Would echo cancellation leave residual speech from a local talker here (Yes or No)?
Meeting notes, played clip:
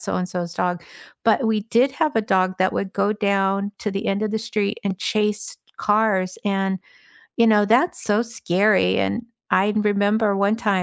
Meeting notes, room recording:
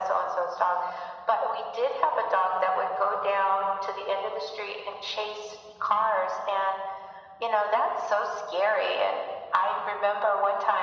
No